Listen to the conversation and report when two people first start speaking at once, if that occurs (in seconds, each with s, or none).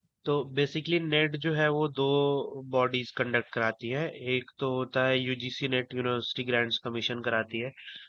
none